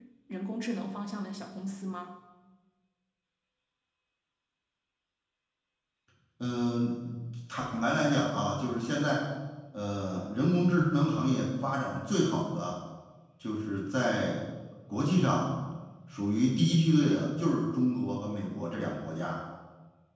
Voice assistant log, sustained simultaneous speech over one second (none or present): none